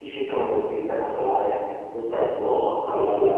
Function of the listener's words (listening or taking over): taking over